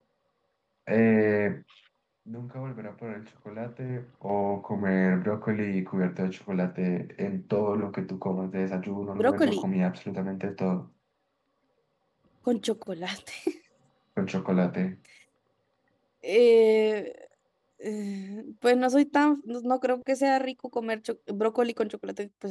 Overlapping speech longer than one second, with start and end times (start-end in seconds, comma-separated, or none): none